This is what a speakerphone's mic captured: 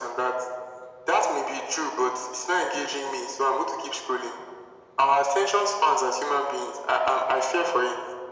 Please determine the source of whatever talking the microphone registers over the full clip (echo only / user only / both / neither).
echo only